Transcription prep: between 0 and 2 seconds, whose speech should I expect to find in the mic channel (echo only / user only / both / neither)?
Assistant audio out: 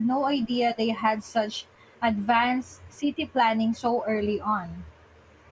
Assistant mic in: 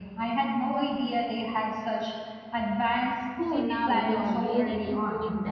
echo only